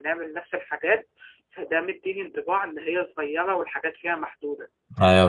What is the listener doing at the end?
taking over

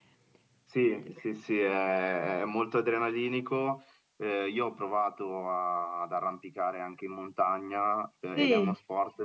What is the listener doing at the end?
listening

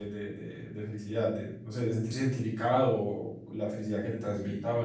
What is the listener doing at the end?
listening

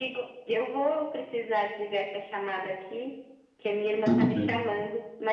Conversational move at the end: listening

